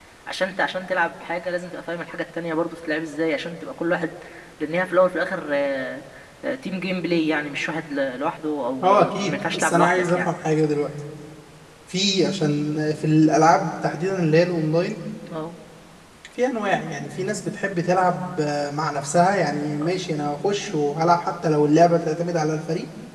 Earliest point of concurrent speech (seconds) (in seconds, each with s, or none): 8.8 s